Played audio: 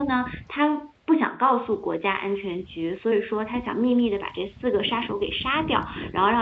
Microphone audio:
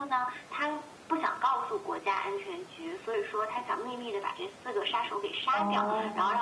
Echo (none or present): present